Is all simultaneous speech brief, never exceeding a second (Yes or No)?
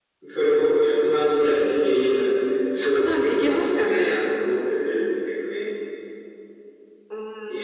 No